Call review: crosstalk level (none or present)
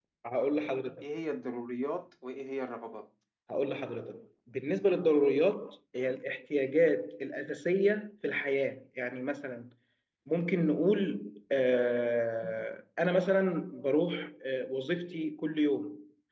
none